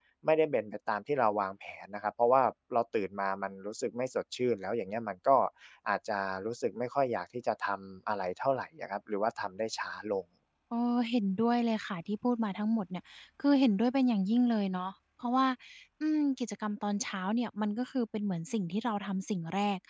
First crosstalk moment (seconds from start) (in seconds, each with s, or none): none